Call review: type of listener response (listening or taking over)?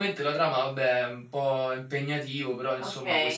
taking over